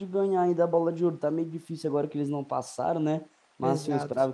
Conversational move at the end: listening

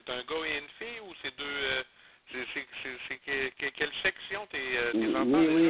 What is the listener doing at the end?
taking over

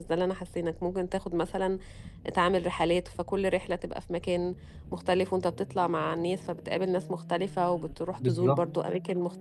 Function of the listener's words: listening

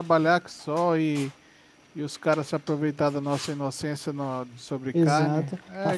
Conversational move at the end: taking over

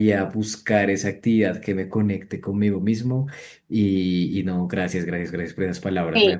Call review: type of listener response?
taking over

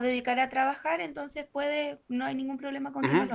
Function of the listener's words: taking over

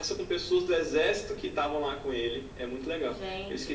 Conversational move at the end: taking over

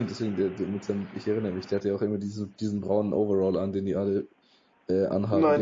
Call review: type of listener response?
taking over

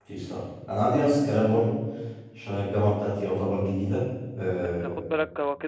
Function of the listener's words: taking over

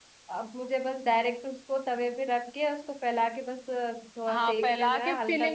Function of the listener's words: taking over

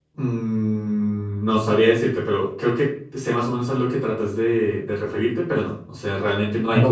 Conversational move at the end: taking over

